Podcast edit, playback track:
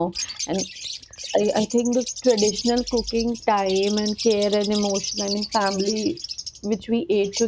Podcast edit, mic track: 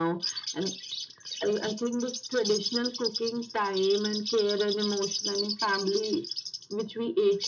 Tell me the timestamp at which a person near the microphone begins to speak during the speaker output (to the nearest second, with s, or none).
none